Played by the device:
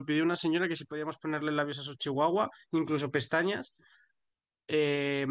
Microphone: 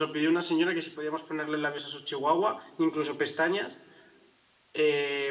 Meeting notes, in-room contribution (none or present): none